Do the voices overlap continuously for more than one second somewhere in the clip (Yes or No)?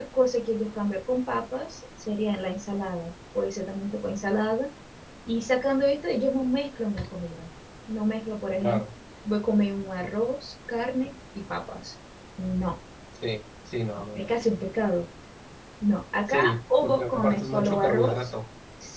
Yes